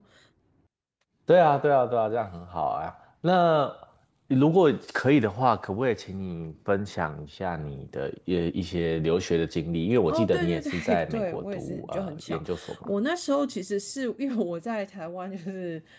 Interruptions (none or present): present